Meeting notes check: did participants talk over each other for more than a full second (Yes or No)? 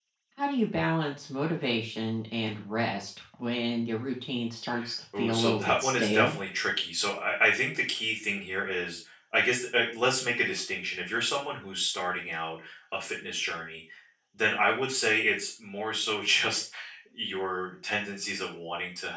Yes